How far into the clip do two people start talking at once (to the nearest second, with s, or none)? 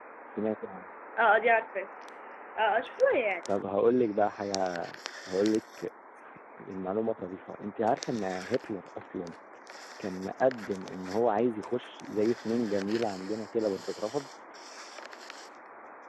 none